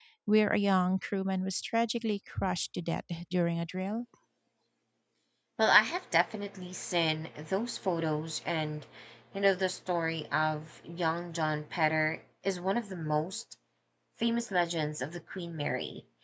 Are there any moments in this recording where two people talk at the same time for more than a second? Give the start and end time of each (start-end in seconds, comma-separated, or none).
none